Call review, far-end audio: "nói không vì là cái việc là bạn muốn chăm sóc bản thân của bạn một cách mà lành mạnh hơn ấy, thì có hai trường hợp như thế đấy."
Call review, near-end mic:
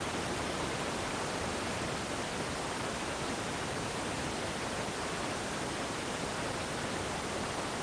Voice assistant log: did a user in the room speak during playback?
No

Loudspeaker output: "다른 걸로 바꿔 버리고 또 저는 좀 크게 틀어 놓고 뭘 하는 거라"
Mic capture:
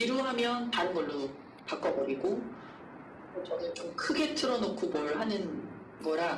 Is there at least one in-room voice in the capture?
No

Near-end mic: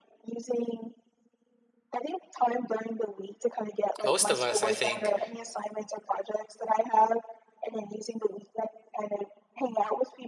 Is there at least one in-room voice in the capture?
Yes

